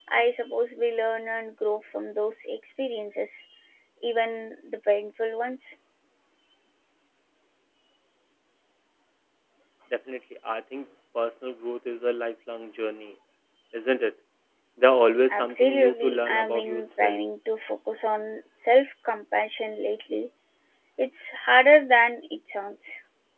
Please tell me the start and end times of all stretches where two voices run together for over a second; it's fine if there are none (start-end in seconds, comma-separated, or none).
15.3-17.2